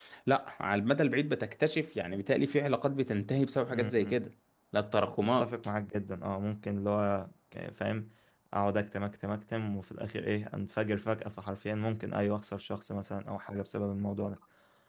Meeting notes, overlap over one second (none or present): none